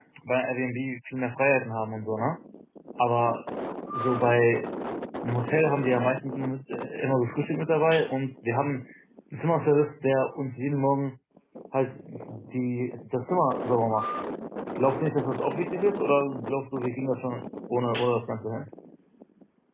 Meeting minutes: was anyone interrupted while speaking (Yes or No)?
No